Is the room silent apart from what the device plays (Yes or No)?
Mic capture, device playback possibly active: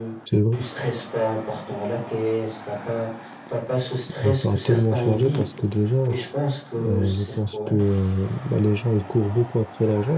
No